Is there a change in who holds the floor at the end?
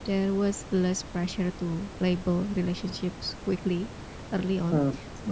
No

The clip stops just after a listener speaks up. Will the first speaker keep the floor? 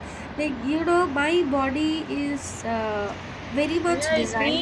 No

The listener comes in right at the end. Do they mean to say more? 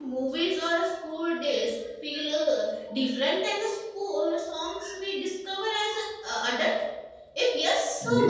Yes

